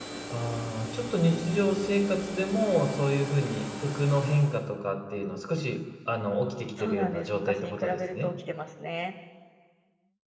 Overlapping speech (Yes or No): Yes